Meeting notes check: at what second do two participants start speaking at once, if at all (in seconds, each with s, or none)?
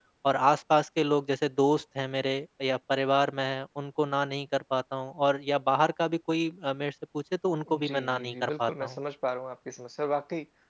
7.7 s